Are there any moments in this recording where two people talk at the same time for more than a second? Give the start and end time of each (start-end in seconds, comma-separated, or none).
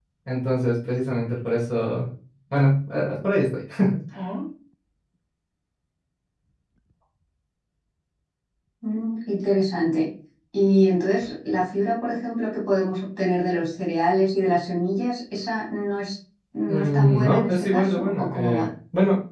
16.7-18.7